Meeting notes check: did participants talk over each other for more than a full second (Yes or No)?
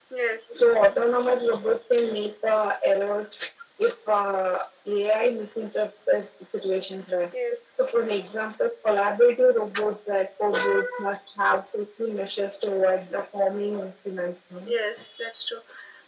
No